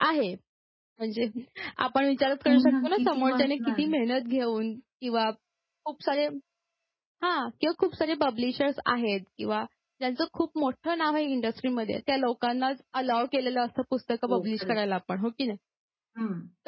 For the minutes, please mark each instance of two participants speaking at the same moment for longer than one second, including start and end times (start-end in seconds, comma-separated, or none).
2.5-3.9